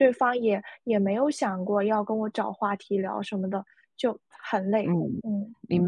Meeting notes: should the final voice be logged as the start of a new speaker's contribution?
Yes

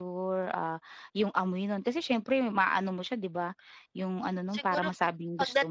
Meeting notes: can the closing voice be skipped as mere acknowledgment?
No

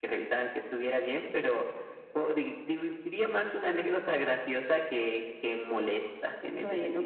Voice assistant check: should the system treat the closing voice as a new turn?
Yes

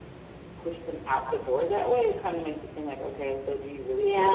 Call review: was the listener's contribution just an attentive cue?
No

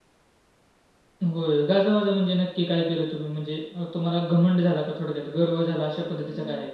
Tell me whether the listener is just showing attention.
No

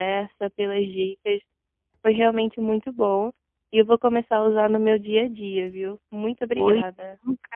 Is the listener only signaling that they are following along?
No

